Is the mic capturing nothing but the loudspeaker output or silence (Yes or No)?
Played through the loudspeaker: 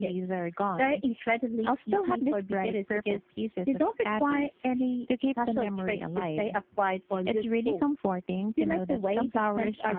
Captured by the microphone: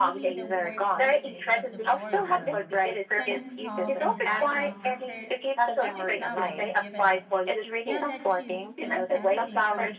No